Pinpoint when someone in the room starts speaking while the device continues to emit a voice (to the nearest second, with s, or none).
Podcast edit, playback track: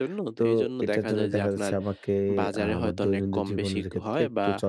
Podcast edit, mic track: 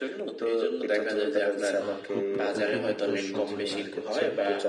2 s